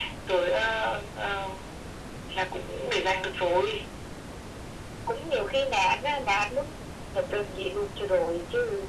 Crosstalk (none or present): none